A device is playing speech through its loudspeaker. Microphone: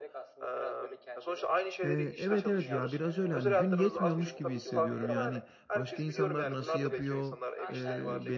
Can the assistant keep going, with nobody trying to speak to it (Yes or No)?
No